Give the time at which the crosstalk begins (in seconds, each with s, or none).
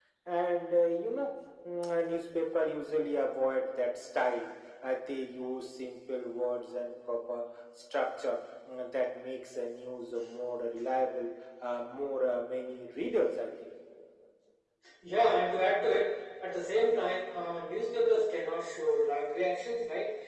none